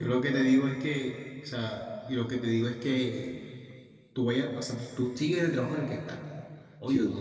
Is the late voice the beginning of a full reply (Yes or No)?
No